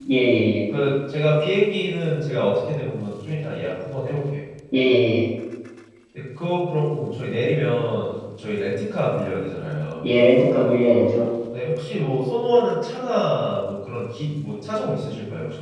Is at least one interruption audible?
No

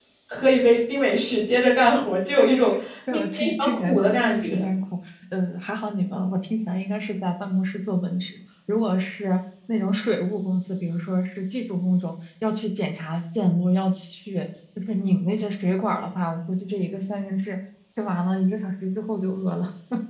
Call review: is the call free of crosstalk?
No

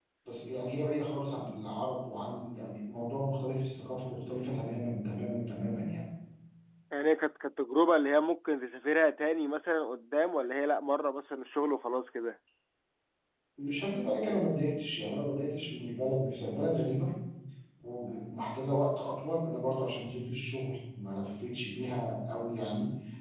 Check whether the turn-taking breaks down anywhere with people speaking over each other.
No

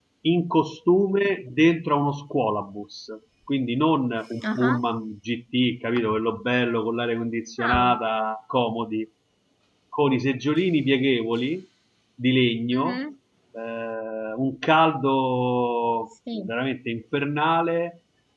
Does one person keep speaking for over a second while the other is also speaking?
No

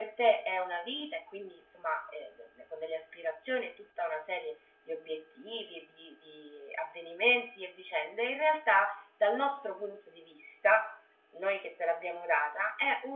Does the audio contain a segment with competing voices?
No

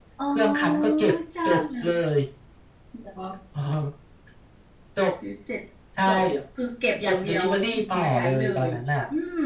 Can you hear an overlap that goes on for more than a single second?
Yes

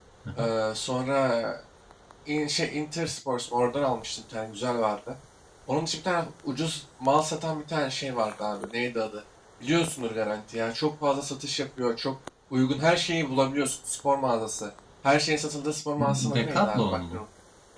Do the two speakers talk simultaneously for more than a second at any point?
Yes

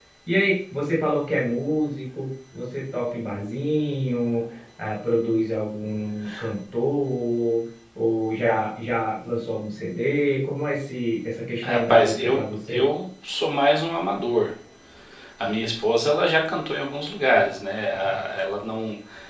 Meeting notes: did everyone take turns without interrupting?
No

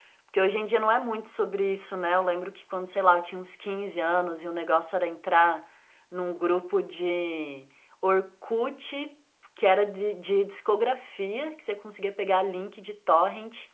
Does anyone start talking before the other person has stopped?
No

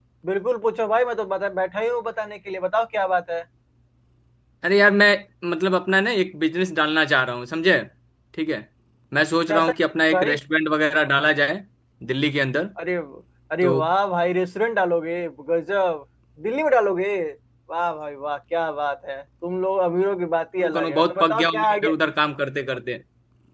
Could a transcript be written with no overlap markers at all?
No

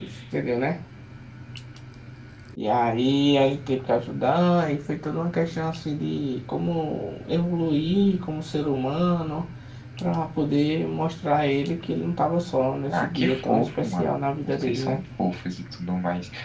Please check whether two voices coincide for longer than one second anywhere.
Yes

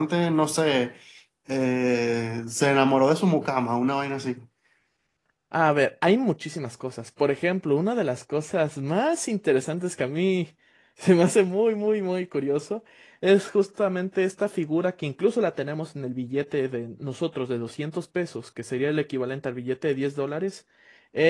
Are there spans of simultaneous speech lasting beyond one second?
No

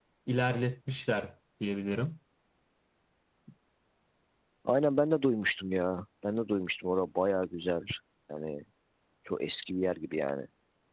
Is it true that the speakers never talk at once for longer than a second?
Yes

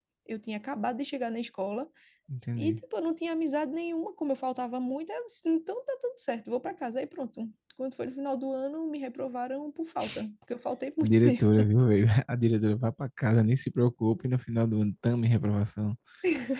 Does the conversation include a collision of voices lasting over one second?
No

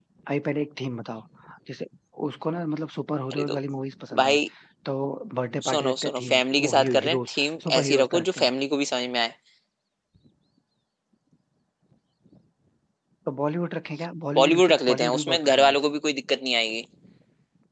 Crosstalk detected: Yes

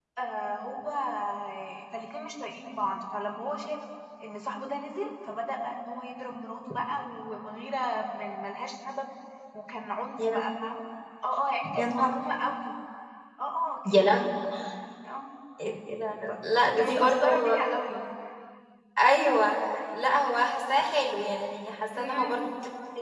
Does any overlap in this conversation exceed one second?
Yes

